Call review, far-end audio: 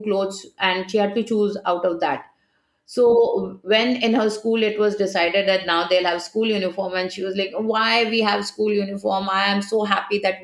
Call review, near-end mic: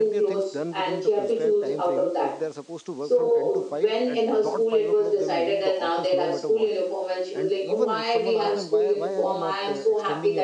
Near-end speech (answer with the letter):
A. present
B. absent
A